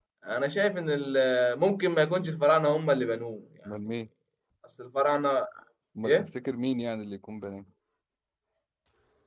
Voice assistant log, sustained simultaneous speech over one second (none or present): none